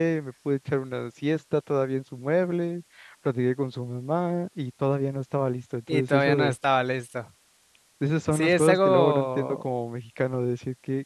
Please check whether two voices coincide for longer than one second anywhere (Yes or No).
Yes